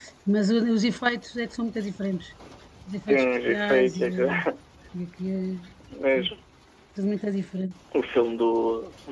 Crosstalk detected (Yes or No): Yes